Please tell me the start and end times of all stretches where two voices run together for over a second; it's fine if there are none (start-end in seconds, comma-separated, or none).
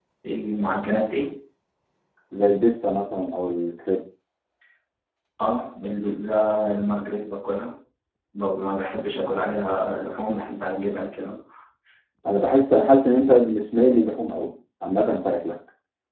none